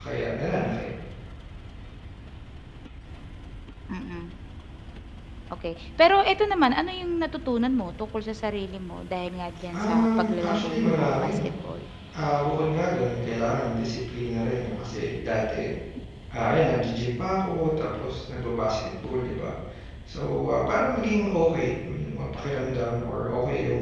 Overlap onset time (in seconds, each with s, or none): 9.7 s